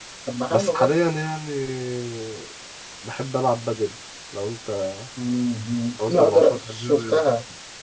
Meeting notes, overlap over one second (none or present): present